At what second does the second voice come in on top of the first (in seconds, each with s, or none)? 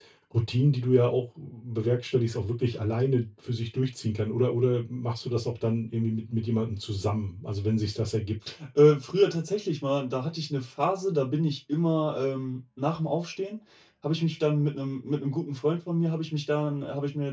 none